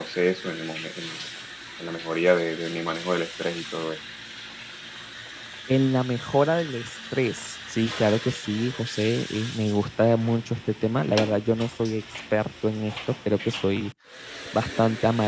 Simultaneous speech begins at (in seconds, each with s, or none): none